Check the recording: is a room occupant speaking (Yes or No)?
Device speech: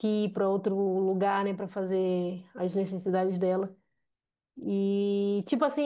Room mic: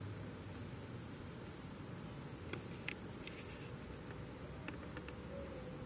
No